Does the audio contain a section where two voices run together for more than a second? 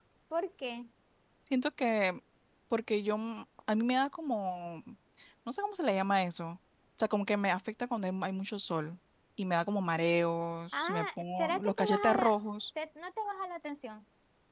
Yes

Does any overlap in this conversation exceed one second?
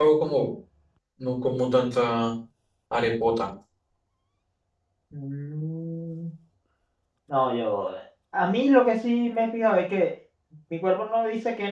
No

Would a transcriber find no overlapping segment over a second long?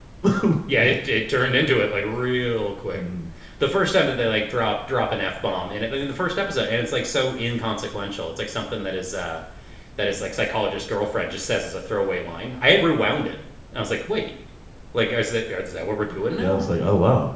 Yes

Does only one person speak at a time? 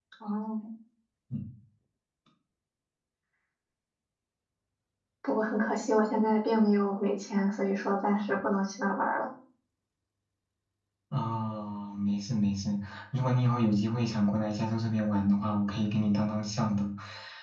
Yes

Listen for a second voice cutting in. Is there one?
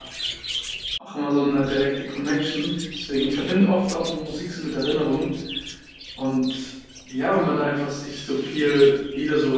No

